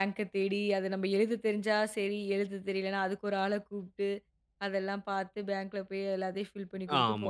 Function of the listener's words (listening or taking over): taking over